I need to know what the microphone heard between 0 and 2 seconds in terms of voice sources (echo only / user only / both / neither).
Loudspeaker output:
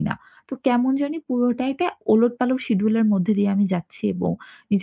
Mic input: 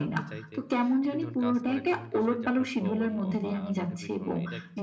both